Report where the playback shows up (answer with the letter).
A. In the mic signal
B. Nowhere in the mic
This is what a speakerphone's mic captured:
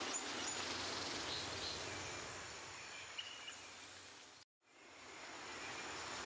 B